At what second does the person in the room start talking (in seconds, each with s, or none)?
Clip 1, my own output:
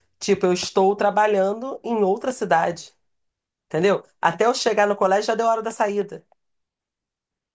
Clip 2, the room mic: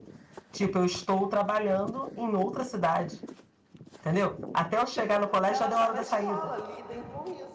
4.8 s